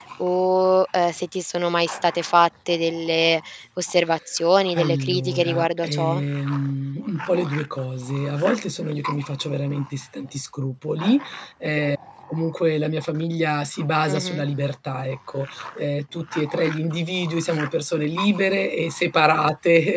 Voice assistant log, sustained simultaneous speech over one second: present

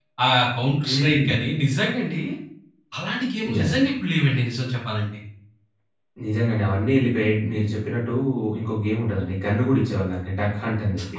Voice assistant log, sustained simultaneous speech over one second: none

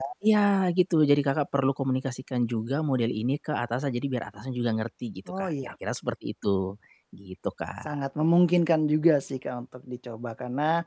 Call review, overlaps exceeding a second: none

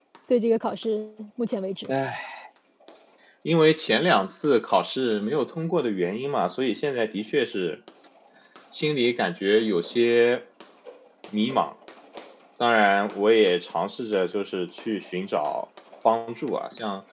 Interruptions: none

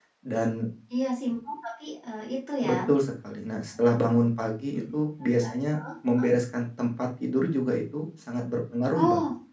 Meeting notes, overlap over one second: none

